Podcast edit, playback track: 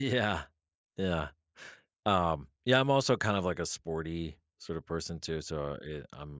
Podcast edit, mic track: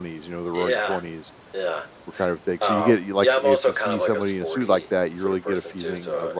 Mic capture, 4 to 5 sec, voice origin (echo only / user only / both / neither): both